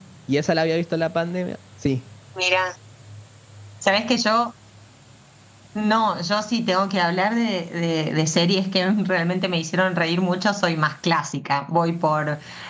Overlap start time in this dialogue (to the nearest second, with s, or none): none